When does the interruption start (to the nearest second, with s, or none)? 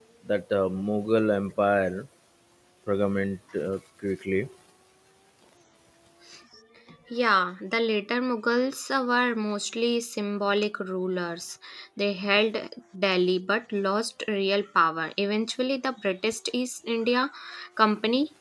none